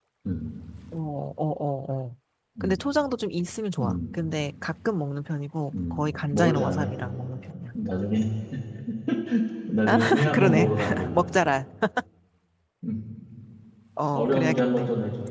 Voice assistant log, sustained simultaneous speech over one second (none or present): present